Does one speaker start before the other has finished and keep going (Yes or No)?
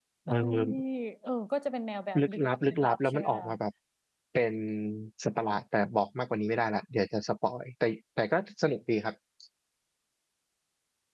Yes